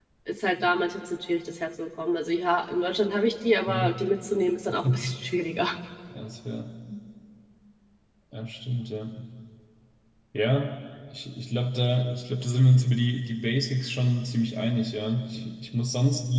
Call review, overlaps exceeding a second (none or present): none